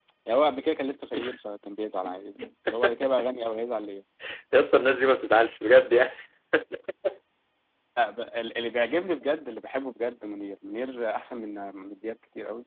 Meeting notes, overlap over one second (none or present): none